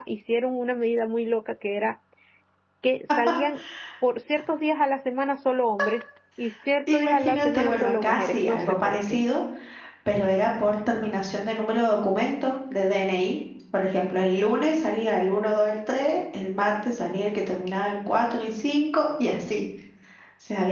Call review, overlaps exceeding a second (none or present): present